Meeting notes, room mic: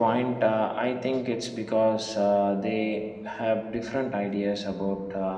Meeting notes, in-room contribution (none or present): none